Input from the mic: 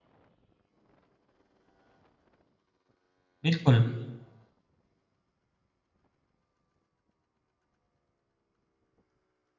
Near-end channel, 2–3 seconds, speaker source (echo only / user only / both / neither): neither